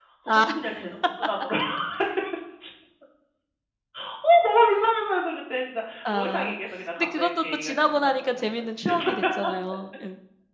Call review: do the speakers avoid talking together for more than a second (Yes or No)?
No